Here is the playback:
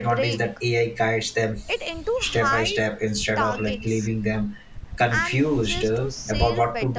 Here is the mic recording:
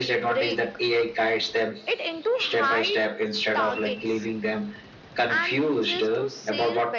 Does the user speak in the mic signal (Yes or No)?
No